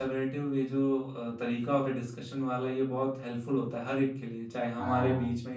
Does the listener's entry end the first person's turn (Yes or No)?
No